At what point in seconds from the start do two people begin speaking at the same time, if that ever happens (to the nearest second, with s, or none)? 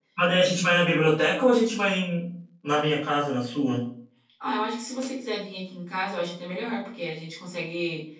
none